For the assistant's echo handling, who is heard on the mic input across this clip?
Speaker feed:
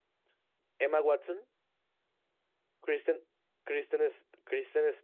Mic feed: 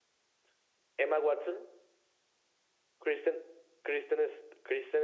echo only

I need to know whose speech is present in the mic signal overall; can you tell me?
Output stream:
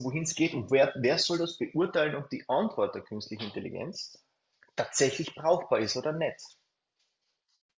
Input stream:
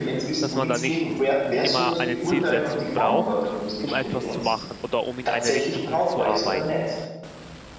both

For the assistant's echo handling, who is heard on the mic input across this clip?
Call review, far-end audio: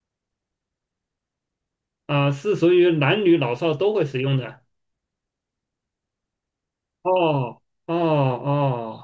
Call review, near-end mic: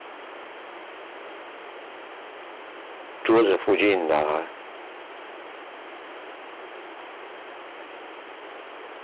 user only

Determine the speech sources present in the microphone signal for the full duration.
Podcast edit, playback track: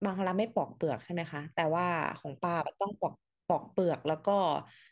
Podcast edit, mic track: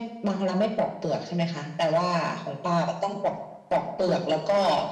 echo only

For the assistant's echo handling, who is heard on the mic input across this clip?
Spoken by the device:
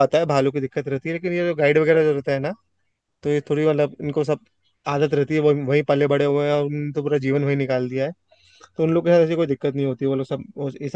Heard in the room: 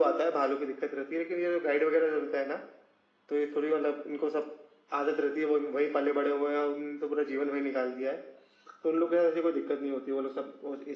echo only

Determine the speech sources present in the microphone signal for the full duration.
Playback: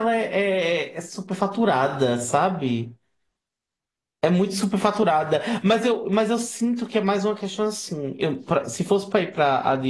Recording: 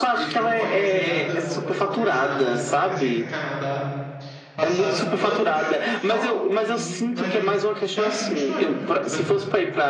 both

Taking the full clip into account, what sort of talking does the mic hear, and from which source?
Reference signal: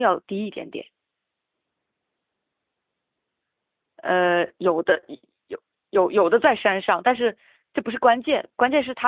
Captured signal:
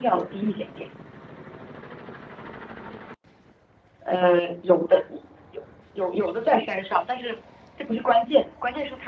echo only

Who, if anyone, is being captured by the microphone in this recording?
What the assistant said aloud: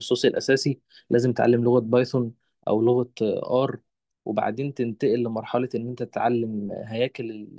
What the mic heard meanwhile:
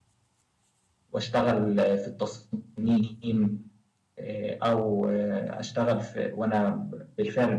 user only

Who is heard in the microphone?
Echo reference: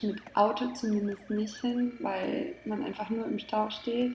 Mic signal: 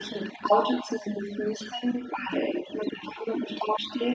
echo only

